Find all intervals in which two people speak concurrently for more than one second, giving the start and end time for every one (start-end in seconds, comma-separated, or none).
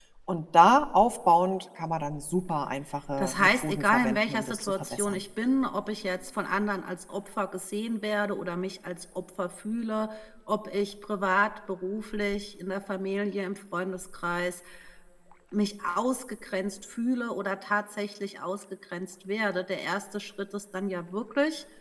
3.2-5.2